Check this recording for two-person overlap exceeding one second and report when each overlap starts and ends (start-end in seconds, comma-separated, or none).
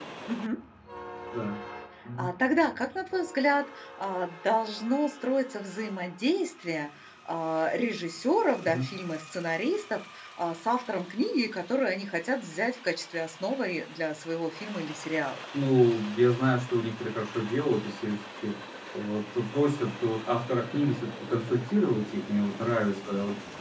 none